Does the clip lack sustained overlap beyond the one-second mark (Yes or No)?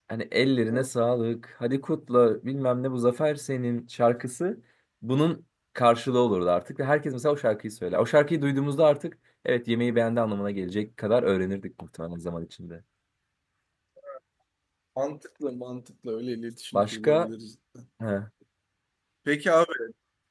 Yes